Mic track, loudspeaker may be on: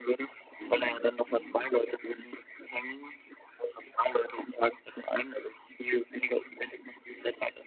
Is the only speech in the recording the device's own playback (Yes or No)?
No